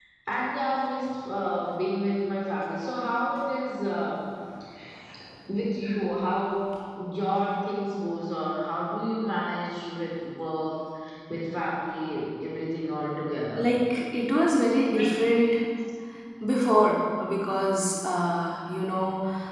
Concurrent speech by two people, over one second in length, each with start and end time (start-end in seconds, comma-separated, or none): none